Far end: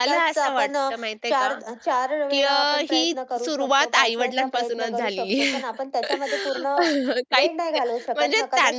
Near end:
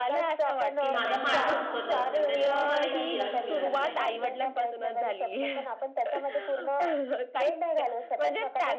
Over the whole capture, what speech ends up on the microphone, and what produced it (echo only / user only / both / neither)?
both